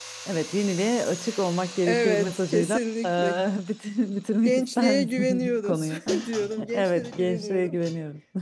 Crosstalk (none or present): present